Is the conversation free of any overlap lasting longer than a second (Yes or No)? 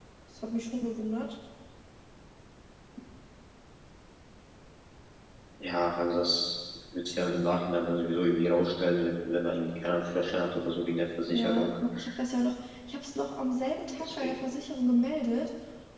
Yes